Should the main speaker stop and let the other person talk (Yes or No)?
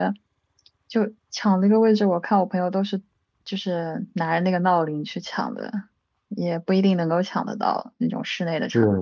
Yes